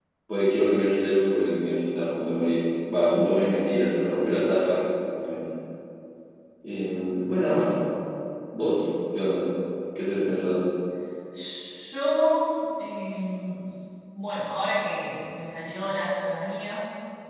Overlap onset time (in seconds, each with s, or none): none